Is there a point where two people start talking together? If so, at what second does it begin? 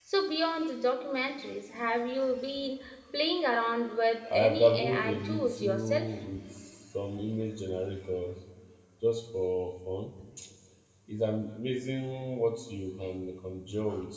4.3 s

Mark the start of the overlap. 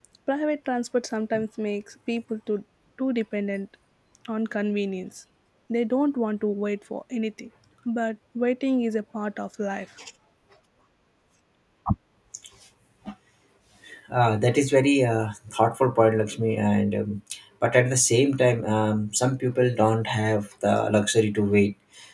none

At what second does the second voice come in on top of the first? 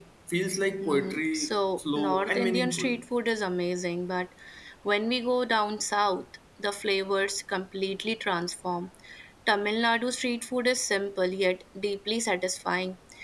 0.8 s

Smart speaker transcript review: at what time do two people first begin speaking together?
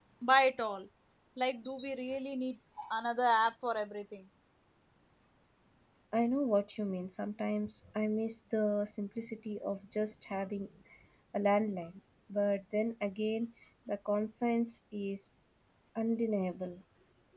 none

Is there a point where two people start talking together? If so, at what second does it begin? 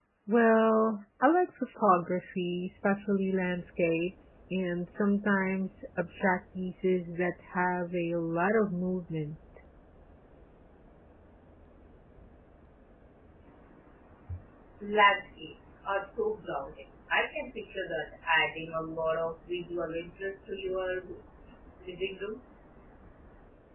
none

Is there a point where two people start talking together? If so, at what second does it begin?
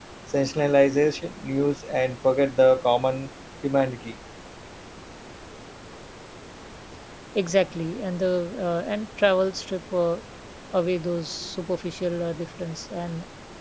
none

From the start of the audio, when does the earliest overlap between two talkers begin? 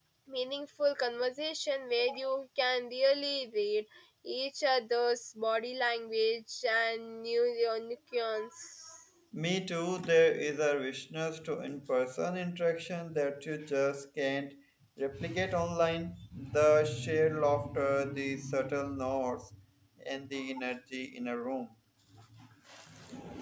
none

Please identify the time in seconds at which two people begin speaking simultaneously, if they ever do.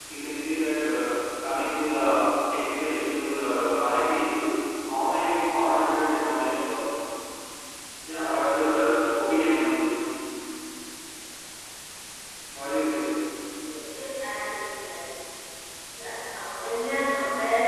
none

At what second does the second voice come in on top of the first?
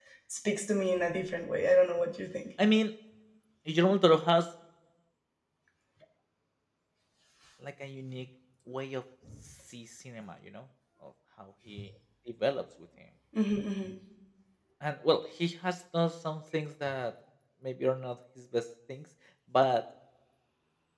none

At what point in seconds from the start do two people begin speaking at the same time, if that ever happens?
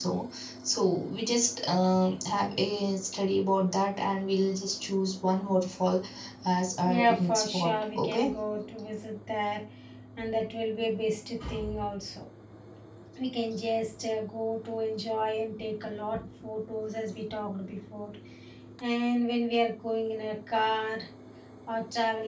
6.8 s

